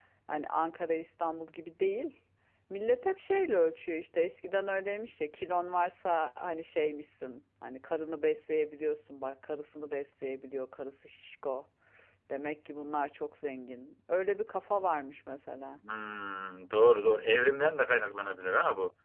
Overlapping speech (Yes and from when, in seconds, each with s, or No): No